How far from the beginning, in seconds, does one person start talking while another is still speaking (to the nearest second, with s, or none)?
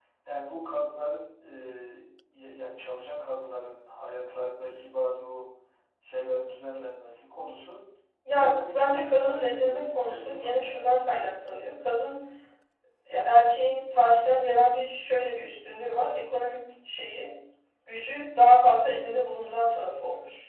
8 s